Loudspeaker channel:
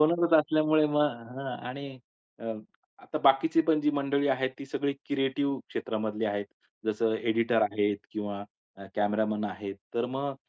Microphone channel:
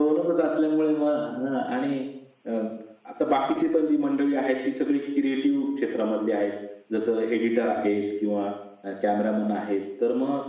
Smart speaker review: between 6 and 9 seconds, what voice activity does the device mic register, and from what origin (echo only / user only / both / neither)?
echo only